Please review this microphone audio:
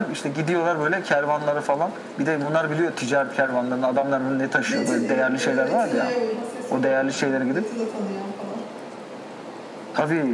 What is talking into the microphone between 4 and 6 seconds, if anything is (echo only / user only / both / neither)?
both